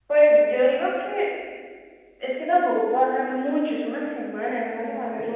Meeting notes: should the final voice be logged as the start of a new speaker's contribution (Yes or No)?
Yes